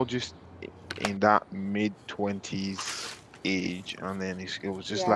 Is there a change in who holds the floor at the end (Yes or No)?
No